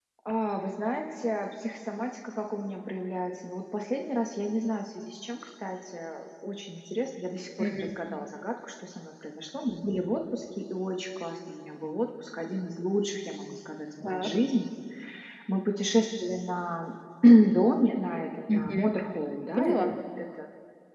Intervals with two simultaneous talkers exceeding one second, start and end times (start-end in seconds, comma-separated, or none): none